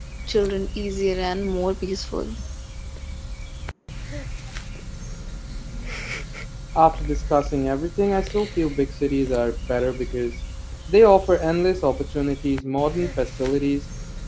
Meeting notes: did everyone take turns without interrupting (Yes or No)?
Yes